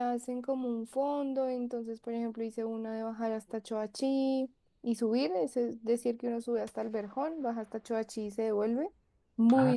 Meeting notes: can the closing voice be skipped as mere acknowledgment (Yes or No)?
No